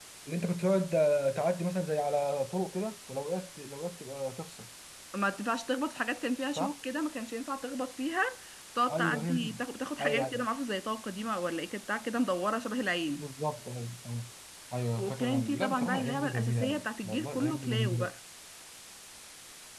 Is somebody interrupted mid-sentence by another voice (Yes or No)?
Yes